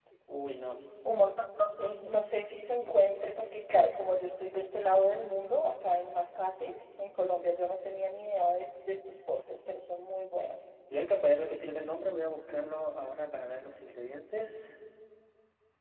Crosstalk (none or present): none